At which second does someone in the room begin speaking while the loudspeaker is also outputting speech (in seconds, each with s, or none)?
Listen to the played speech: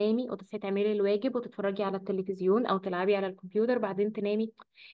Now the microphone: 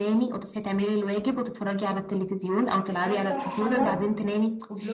3.0 s